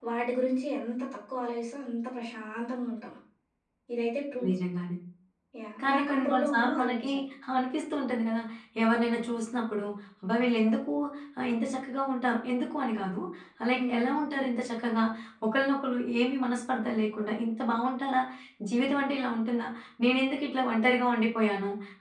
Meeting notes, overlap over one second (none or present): present